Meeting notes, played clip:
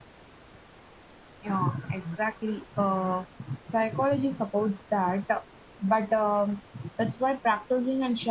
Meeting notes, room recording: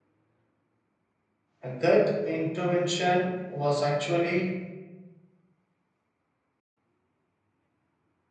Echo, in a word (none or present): none